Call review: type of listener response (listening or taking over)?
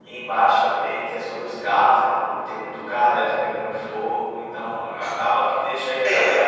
listening